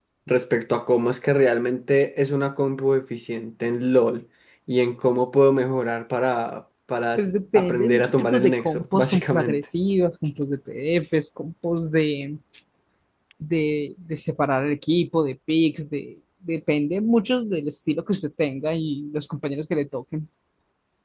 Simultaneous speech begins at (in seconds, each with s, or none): 7.2 s